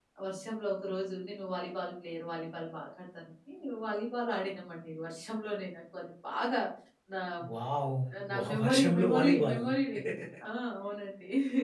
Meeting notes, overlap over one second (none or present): present